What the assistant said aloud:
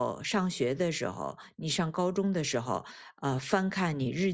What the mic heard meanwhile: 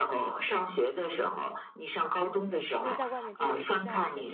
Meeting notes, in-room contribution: present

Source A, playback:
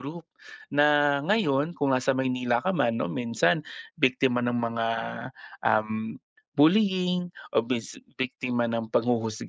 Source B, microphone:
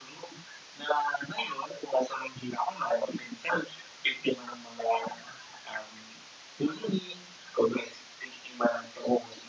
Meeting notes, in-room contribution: none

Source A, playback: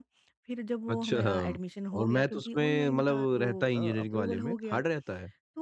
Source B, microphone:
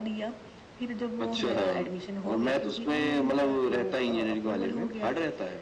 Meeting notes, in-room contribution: none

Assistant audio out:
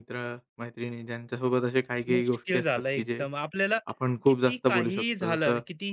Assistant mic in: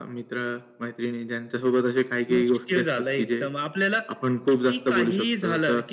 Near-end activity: none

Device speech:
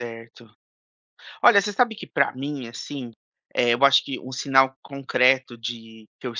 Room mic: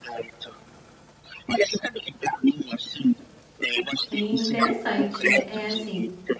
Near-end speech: present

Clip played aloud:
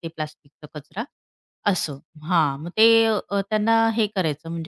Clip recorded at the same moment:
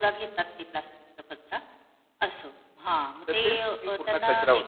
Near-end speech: present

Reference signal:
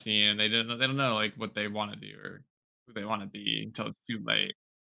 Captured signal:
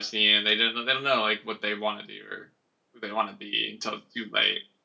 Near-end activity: none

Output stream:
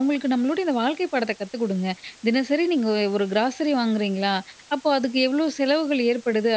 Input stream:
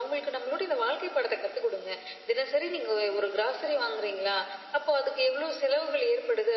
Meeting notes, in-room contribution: none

